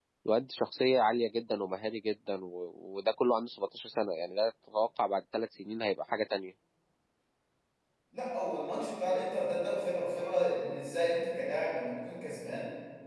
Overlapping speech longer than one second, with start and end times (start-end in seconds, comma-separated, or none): none